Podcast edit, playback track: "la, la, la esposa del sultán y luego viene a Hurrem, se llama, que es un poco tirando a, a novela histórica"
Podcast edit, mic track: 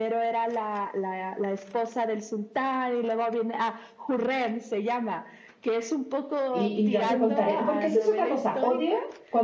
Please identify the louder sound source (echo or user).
user